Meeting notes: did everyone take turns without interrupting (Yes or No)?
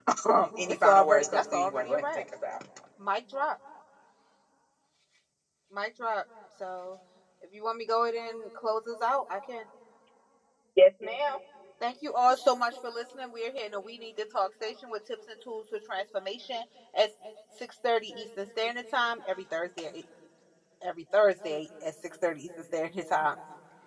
No